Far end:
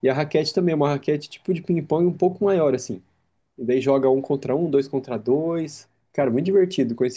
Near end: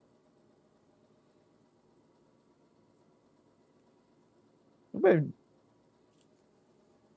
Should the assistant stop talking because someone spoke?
Yes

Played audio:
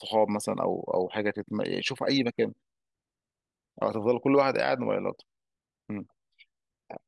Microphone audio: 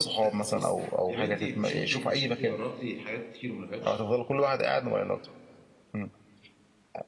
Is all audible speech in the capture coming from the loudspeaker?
No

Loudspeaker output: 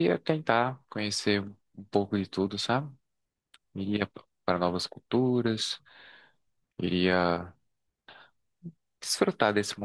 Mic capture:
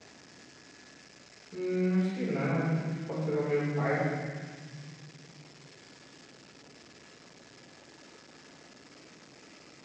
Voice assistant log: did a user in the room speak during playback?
Yes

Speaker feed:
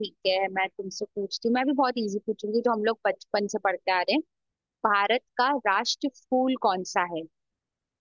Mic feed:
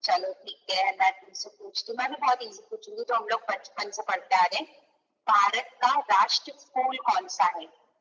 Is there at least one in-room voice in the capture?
No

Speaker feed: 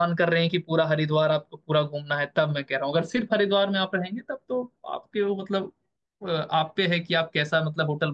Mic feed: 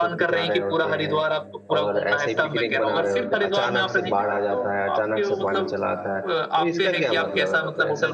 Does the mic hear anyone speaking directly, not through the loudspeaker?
Yes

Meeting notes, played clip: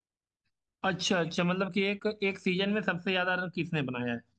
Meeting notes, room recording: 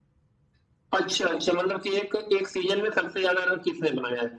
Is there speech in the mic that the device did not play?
No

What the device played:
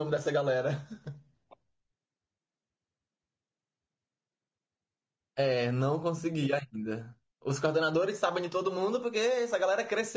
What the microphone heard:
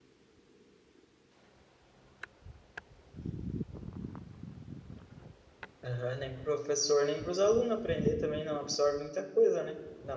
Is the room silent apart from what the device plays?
No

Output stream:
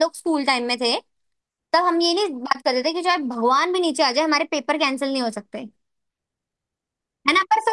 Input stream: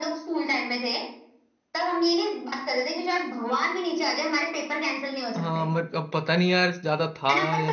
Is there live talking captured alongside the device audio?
Yes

